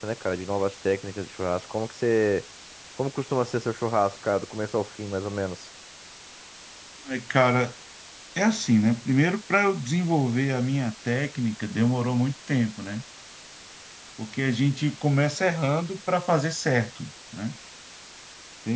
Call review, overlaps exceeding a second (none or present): none